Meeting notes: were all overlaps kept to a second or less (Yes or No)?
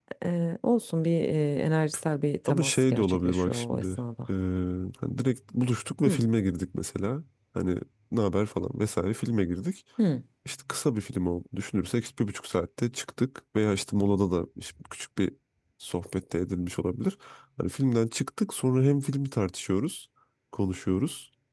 No